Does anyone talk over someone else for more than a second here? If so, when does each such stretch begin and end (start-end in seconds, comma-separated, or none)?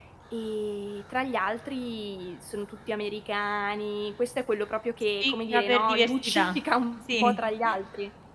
5.2-6.5